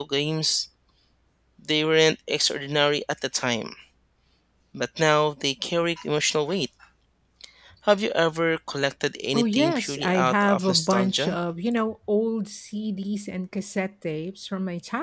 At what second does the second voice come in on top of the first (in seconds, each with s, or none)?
9.3 s